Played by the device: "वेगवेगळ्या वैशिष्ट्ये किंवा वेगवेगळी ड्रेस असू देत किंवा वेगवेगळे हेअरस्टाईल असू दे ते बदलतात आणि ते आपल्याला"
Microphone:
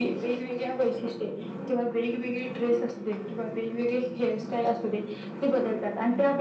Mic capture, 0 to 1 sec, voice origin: echo only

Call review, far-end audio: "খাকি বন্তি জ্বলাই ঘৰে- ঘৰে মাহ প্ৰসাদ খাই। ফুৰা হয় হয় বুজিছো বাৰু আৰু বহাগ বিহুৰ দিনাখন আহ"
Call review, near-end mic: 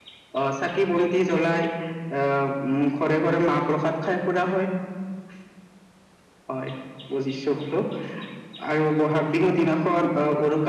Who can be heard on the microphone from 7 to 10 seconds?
echo only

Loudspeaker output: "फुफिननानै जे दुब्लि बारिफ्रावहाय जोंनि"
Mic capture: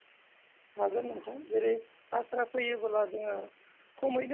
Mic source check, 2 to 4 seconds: user only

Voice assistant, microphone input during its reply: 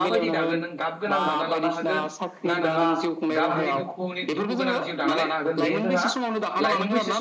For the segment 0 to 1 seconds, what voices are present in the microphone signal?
both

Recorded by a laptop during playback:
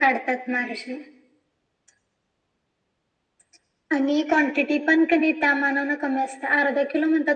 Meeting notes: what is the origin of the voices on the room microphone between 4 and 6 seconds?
echo only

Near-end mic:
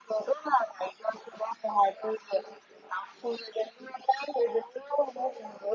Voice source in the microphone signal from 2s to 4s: echo only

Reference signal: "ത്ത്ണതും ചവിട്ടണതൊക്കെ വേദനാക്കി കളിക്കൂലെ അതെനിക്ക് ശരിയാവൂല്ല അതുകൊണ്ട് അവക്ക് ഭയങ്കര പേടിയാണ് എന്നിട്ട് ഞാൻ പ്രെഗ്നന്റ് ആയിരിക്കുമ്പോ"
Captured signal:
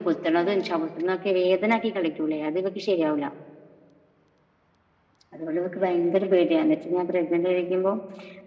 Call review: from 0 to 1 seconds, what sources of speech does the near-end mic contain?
both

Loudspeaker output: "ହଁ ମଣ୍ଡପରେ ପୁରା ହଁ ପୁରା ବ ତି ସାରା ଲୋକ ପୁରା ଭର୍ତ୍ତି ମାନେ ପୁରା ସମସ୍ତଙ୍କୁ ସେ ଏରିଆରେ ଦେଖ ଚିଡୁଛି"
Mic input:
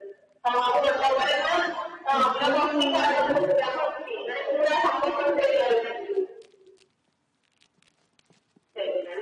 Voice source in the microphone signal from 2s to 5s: both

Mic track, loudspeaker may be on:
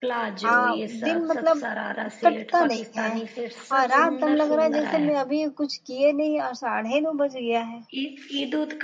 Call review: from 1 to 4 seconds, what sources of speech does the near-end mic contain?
both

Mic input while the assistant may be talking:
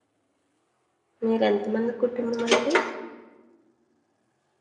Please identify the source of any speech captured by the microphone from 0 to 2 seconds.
user only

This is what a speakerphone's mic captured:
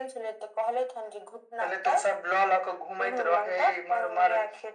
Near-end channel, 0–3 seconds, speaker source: echo only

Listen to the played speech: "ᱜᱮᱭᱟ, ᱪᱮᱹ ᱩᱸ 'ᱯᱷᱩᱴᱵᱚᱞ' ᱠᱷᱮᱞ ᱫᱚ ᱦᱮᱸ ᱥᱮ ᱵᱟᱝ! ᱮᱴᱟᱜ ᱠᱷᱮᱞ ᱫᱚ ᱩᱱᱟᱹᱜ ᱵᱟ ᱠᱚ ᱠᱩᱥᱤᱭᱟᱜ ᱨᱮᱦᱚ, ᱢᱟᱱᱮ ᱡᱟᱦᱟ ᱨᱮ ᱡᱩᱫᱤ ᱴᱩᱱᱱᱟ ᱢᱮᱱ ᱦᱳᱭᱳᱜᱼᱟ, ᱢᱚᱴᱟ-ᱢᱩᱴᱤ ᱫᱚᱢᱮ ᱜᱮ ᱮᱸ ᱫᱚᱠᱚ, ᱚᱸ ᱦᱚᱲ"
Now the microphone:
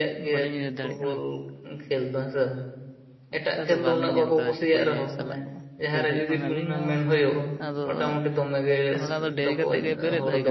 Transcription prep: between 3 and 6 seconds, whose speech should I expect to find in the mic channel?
both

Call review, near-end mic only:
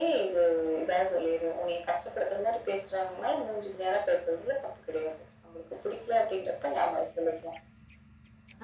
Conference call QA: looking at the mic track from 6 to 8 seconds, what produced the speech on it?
echo only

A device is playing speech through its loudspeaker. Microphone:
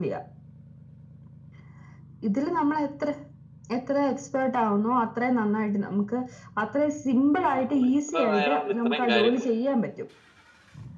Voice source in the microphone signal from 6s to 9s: both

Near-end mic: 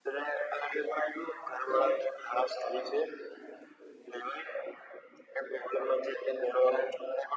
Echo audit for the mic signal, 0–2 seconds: echo only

